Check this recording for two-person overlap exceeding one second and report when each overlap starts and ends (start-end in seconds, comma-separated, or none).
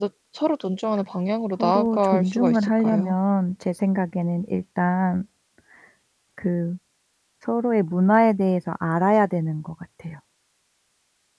1.6-3.2